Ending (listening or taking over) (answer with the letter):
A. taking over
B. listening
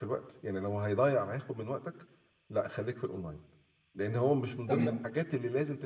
B